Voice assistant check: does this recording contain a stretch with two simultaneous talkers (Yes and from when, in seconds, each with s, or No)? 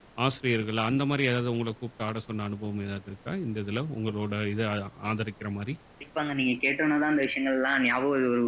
No